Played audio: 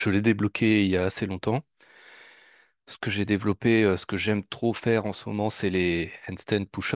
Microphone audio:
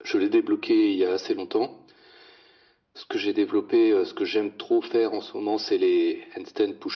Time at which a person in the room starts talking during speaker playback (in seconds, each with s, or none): none